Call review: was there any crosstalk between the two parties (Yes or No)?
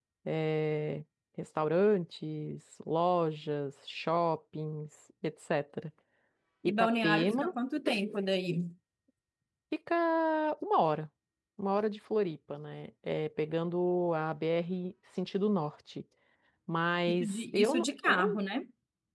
Yes